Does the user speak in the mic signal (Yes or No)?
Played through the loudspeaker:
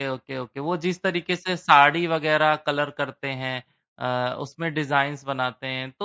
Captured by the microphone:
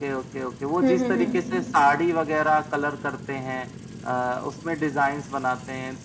Yes